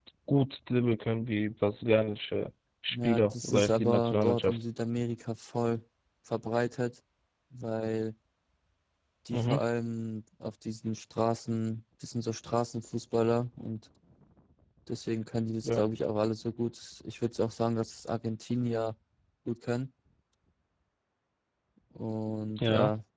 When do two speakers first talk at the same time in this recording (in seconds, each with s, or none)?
2.9 s